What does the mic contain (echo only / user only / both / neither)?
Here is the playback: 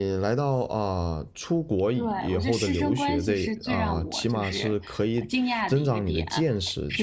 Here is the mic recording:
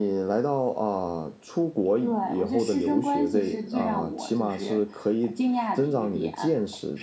both